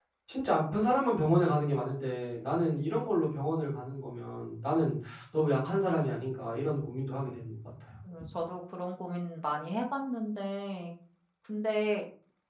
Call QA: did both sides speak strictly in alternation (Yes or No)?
Yes